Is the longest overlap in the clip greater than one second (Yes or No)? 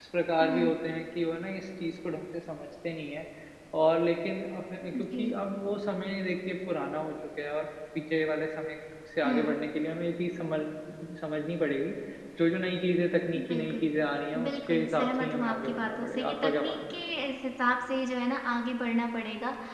Yes